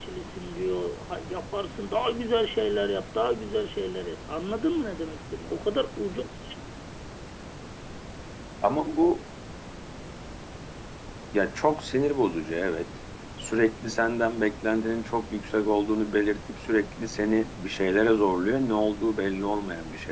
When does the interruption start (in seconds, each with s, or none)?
none